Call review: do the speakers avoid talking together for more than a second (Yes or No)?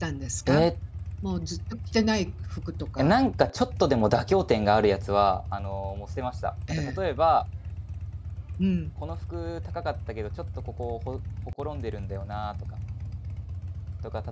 Yes